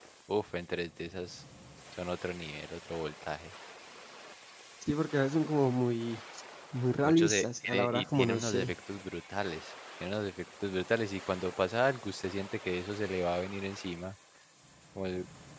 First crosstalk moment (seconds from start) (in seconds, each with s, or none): 7.0 s